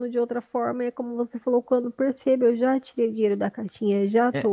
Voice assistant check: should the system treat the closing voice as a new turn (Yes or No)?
No